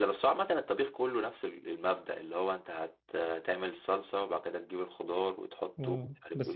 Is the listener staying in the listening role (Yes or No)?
No